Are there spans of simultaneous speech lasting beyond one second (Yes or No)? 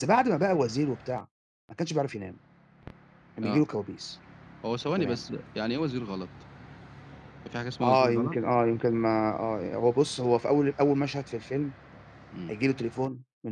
No